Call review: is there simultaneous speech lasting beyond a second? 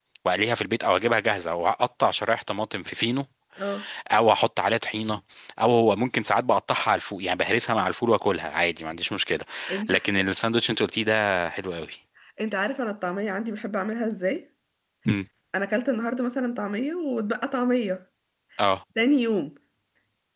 No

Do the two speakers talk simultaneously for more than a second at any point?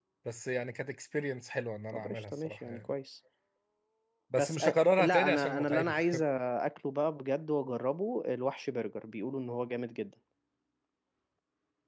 Yes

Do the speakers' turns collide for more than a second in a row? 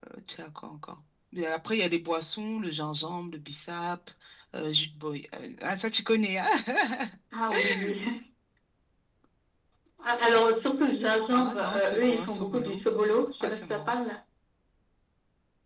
Yes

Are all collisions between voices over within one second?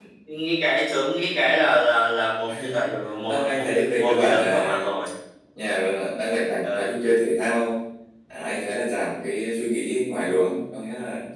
No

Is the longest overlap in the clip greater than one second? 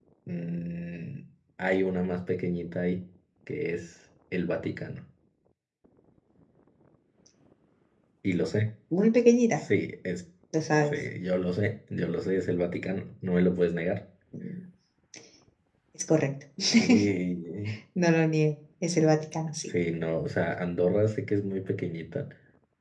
No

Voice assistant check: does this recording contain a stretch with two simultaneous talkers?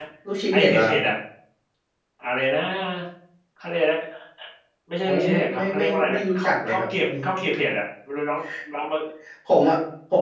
Yes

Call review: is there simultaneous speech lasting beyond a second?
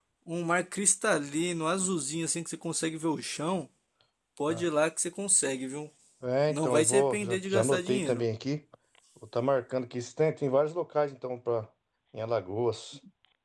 Yes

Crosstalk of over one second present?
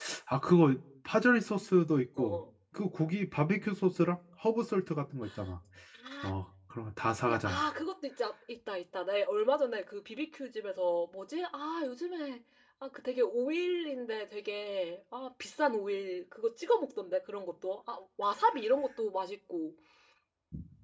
No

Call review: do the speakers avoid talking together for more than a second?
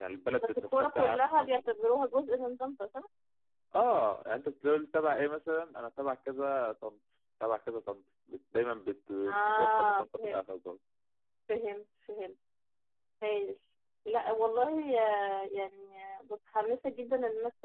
No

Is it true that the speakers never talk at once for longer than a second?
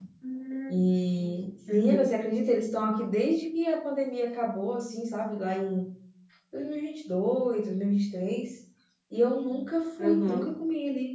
Yes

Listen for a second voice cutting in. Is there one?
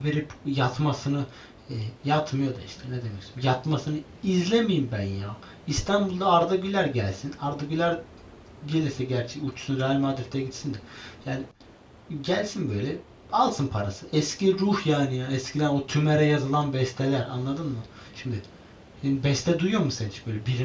No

